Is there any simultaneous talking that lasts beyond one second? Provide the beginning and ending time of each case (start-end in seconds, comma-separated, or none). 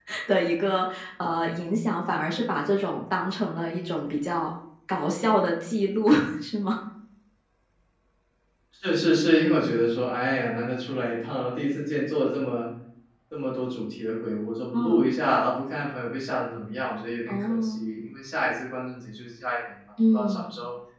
none